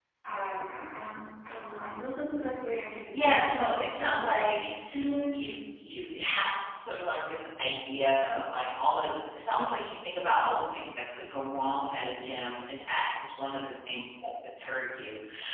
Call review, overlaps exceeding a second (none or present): present